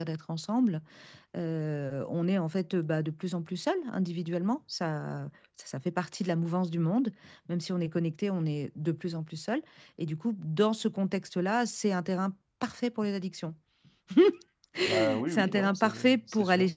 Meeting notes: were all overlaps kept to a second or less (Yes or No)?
No